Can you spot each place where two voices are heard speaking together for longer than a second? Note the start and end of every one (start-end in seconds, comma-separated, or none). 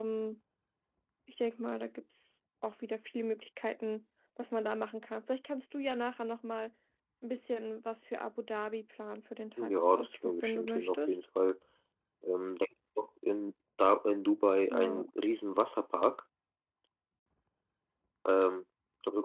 9.6-11.1